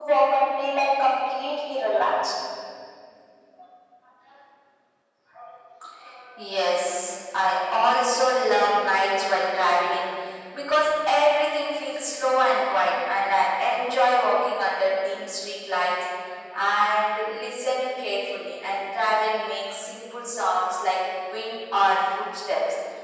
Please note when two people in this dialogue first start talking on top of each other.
none

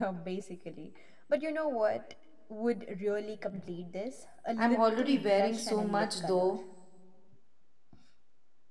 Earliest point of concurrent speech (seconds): 4.6 s

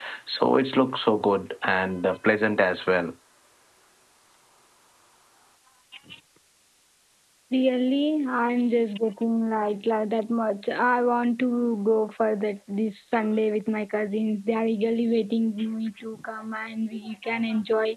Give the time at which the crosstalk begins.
none

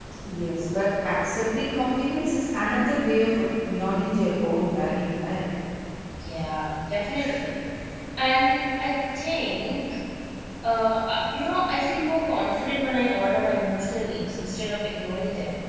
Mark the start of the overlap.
none

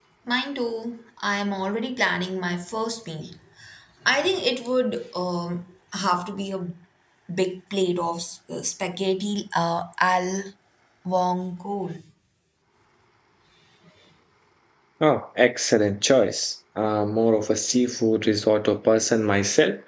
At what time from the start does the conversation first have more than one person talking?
none

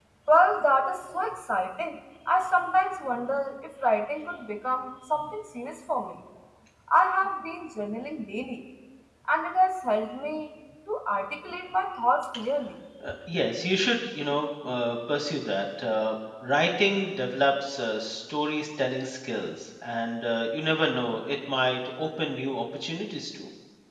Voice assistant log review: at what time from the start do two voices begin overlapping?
none

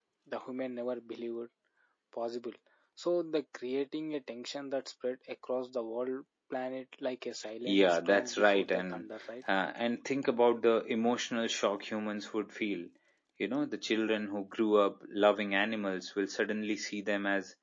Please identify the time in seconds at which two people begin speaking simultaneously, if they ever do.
7.7 s

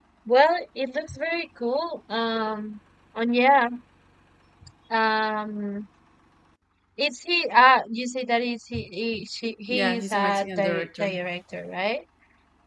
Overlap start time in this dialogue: 9.7 s

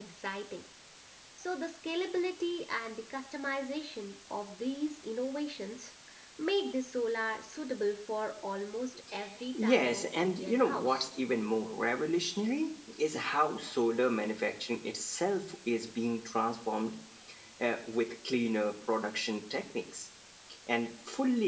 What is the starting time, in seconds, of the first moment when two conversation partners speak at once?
9.5 s

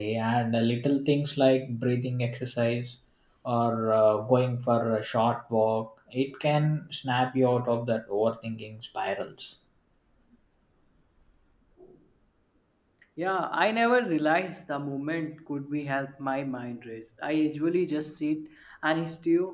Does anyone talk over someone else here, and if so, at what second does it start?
none

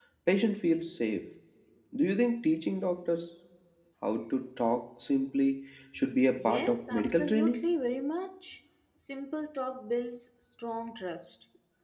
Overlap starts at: 6.4 s

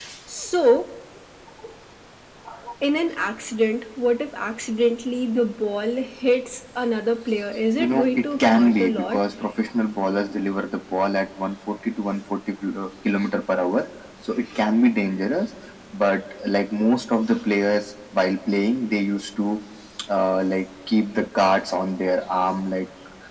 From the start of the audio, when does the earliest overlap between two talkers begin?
7.8 s

